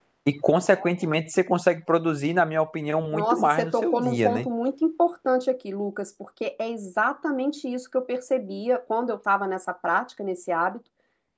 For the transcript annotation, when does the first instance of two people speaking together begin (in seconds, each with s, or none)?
3.1 s